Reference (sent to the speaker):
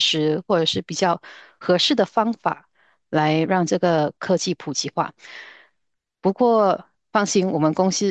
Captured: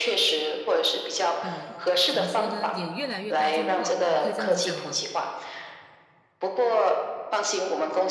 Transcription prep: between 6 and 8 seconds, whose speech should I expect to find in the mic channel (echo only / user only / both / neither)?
echo only